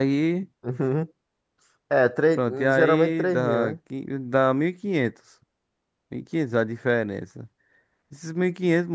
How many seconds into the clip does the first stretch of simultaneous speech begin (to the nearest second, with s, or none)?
2 s